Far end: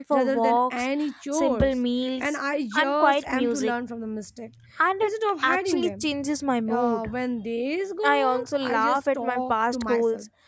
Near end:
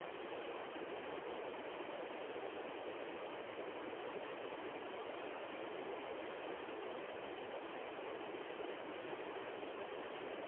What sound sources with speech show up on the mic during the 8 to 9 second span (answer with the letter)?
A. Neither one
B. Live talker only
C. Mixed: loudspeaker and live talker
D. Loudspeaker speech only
A